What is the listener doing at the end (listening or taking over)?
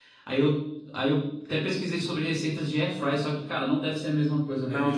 taking over